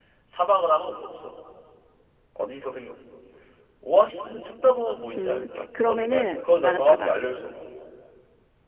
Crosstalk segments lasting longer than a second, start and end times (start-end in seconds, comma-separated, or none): 5.2-7.1